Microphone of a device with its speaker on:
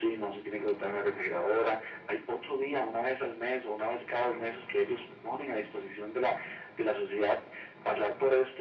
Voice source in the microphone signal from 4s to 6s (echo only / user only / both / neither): echo only